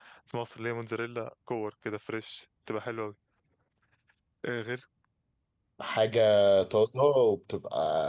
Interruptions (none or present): none